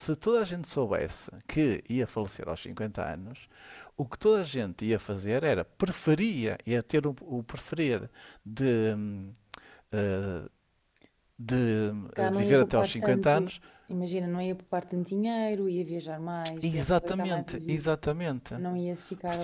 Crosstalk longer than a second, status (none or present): present